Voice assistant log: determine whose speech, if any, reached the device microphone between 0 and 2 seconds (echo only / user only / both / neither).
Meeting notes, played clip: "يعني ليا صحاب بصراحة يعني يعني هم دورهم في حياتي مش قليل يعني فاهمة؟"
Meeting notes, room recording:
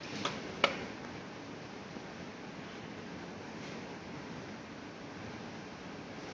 neither